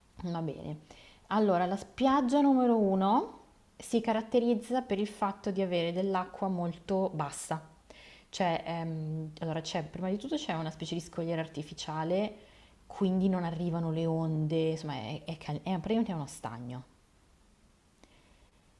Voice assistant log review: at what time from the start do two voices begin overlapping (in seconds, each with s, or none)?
none